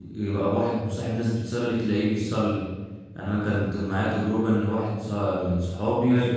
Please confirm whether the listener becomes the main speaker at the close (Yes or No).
No